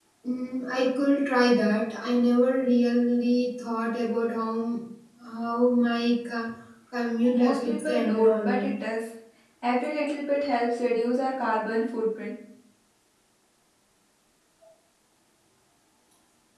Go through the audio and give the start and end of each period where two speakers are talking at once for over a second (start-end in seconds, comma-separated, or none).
7.3-8.7